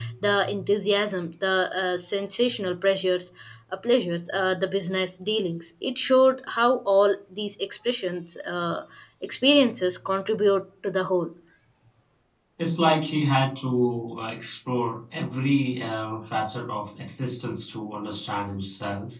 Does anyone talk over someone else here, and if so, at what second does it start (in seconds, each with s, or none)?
none